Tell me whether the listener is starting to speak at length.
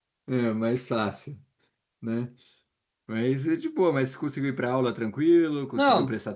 Yes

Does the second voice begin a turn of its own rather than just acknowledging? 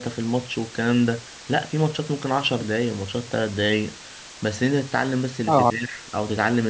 No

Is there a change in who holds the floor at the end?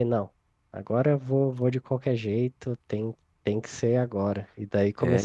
No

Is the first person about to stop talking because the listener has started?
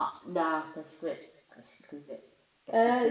Yes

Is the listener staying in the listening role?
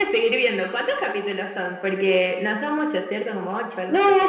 No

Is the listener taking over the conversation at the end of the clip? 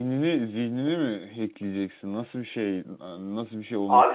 Yes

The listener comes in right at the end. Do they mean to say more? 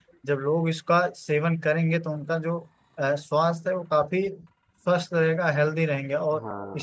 No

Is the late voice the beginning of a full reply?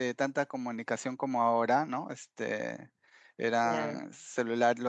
No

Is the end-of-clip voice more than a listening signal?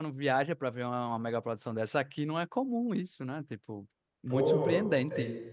Yes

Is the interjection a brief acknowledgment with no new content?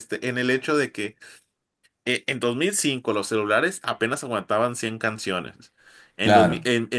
Yes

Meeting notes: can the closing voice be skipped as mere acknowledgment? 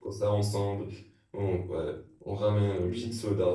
Yes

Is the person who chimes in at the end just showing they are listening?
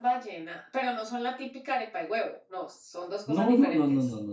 No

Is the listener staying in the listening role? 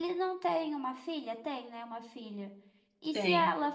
Yes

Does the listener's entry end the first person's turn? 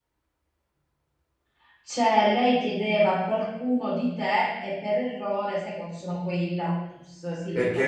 Yes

